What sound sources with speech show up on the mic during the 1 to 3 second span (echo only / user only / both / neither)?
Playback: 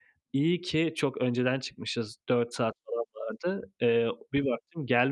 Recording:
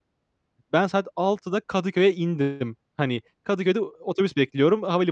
user only